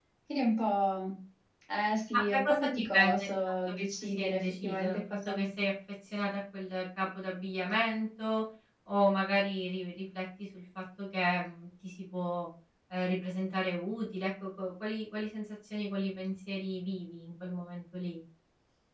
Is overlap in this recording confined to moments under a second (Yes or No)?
No